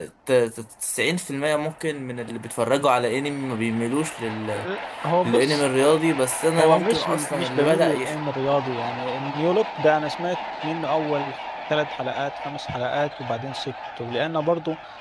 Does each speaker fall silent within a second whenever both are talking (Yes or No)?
No